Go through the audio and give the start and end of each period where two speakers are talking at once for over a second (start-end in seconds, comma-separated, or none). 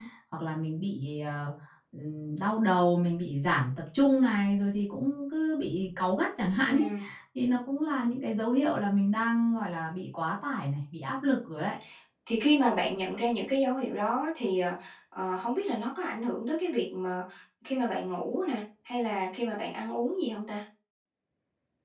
none